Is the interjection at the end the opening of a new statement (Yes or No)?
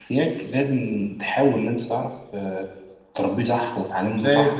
Yes